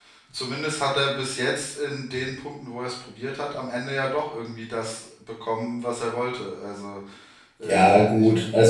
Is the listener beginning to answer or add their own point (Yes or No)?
Yes